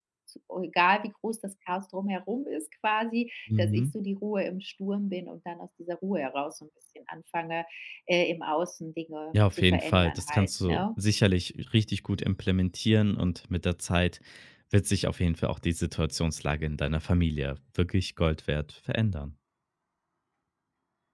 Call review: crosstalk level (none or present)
present